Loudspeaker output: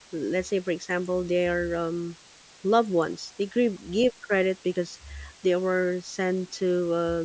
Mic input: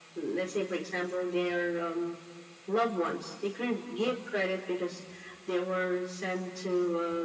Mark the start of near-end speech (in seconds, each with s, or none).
none